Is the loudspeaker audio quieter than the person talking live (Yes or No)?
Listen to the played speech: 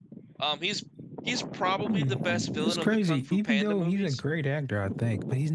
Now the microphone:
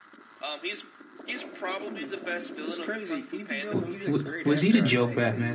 Yes